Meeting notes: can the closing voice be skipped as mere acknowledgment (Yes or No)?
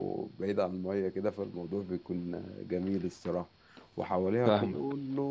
Yes